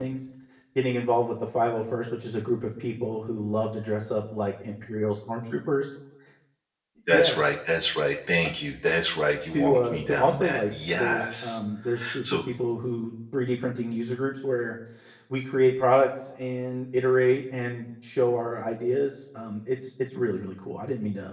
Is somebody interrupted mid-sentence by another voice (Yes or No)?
Yes